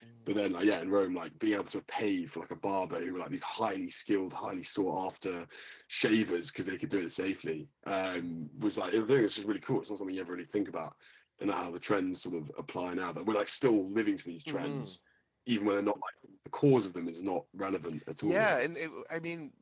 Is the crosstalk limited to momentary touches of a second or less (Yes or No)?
Yes